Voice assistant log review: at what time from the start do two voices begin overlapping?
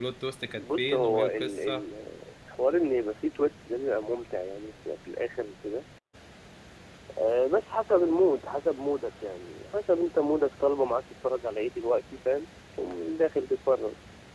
1 s

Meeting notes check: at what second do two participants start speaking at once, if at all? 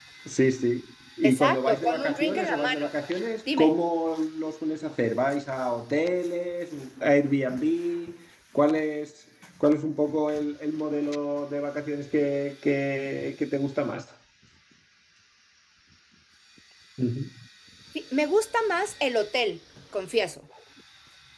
1 s

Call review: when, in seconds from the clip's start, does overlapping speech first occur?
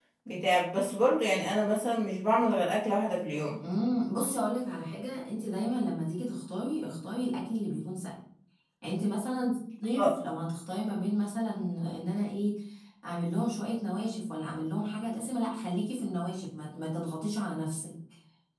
none

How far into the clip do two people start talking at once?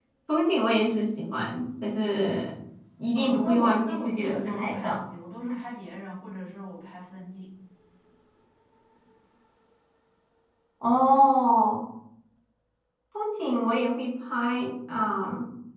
3 s

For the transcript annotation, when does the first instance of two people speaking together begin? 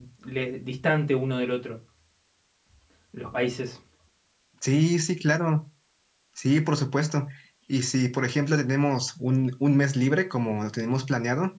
none

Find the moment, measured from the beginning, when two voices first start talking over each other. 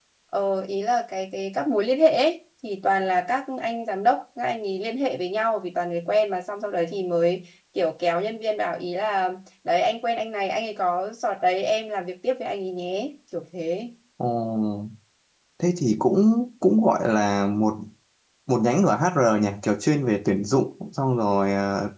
none

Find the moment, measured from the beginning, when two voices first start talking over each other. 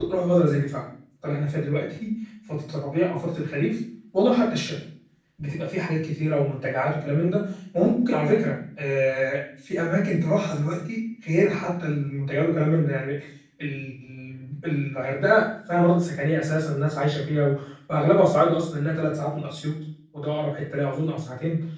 none

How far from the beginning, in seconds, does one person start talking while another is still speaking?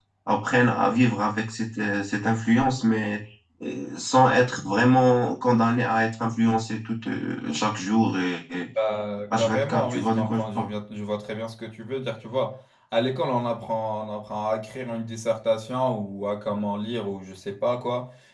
9 s

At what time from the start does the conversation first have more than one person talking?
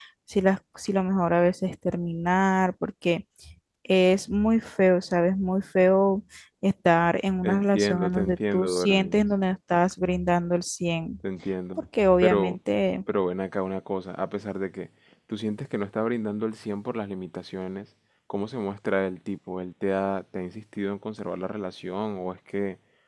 7 s

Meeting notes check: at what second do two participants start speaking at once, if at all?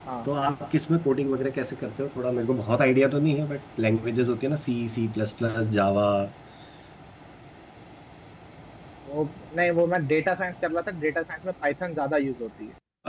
none

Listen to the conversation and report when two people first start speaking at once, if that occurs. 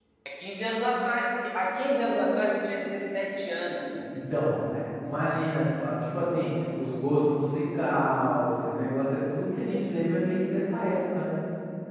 none

